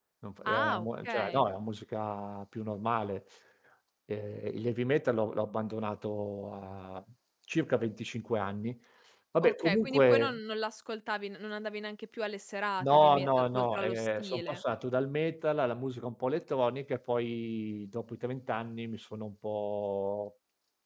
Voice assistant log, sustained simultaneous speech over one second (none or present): present